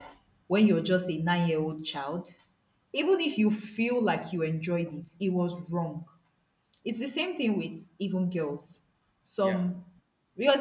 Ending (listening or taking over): listening